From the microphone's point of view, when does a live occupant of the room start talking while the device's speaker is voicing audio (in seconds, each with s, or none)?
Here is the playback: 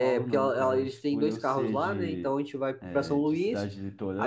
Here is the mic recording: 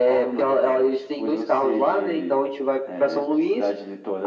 none